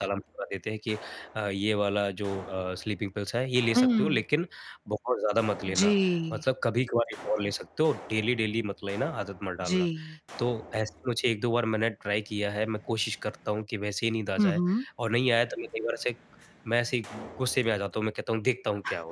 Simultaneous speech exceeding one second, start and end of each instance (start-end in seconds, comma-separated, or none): none